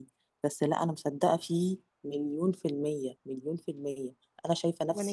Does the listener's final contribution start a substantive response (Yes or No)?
No